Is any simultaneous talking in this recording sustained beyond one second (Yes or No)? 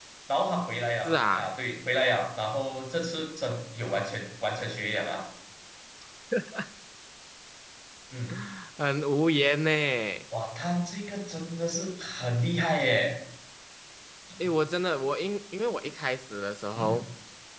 No